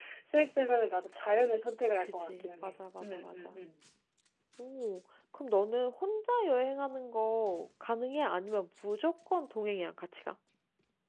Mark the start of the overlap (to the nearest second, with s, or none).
2 s